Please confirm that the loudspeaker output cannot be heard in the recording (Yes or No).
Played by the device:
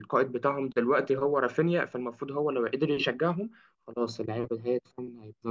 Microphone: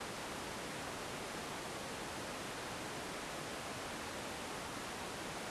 Yes